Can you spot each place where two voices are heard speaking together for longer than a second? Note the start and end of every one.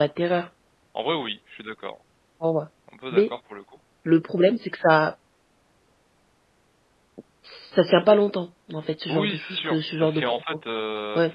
9.1-10.4

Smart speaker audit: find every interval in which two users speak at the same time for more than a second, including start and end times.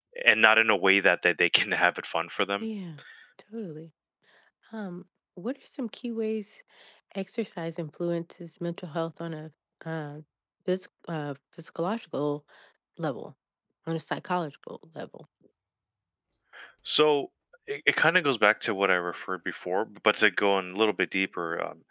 none

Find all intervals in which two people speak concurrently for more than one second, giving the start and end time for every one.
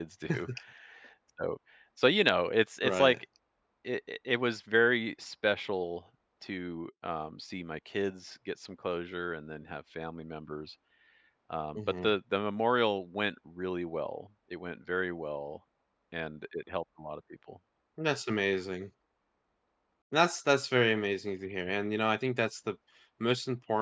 none

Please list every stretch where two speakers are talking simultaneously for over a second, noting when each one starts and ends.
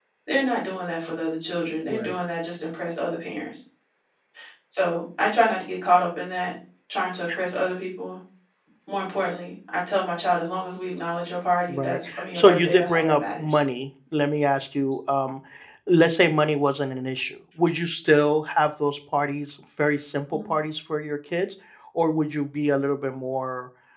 11.7-13.6

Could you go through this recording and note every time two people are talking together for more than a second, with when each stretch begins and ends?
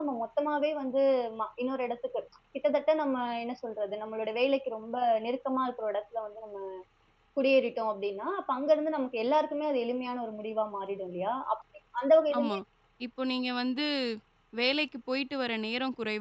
none

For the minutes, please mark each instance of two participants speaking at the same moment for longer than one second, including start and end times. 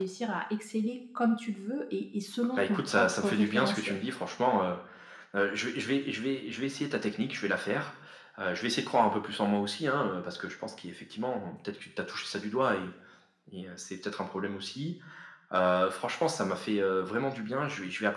2.5-4.0

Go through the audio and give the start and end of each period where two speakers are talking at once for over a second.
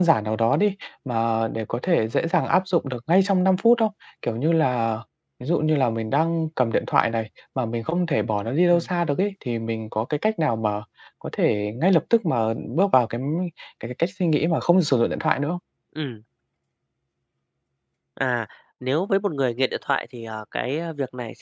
none

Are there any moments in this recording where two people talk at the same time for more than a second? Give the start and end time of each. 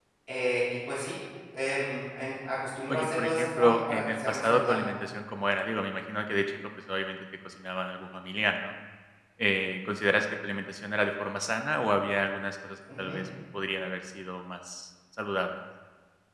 2.9-4.9

